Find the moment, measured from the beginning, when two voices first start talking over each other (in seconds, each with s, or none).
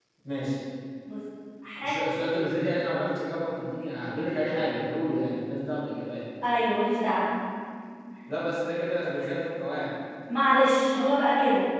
none